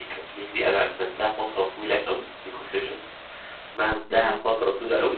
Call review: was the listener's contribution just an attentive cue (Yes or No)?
Yes